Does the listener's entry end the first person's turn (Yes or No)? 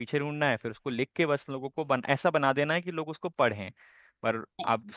No